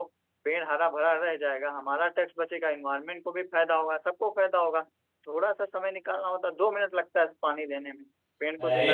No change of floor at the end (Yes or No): No